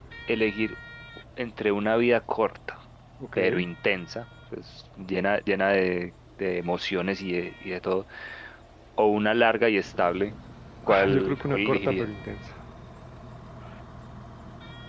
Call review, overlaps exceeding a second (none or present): present